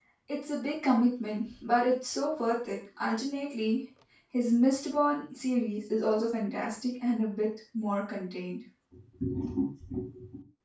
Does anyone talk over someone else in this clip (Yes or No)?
No